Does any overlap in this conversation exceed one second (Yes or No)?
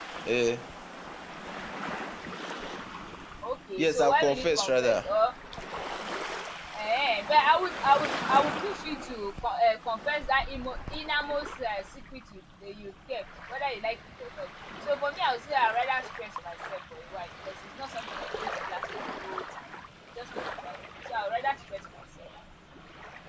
Yes